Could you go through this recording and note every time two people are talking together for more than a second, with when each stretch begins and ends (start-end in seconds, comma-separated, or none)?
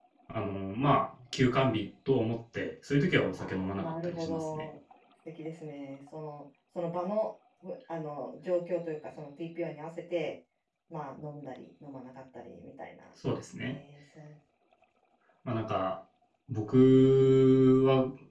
3.4-4.7